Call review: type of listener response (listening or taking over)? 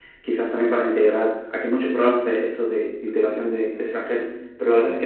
listening